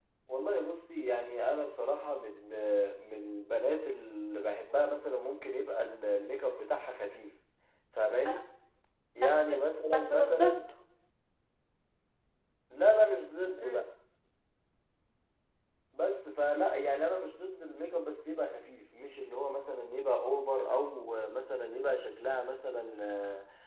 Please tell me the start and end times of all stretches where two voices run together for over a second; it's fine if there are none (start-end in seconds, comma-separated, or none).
9.2-10.6